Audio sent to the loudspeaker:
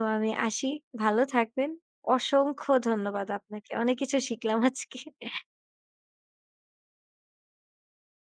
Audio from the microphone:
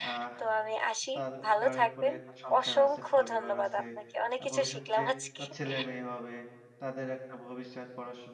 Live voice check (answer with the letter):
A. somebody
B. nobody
A